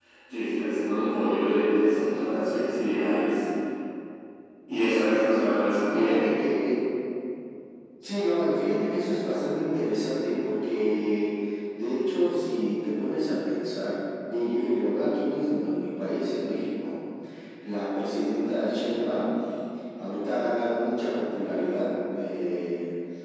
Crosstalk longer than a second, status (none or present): none